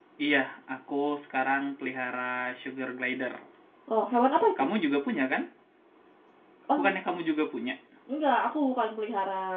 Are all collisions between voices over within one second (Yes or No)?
Yes